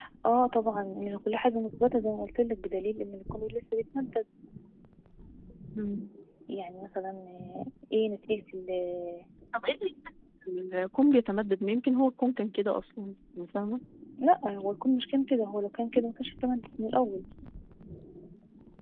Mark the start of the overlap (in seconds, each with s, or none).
none